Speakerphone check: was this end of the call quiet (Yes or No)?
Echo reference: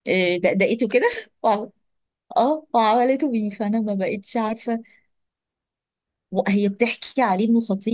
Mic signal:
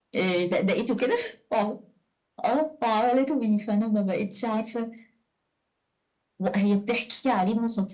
Yes